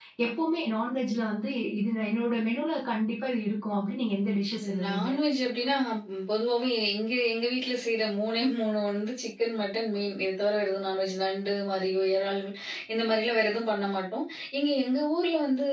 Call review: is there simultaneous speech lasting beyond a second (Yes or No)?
No